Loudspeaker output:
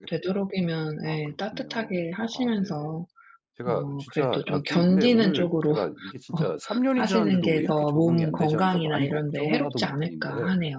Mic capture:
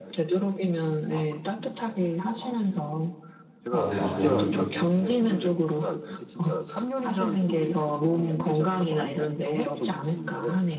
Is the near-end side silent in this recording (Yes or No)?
No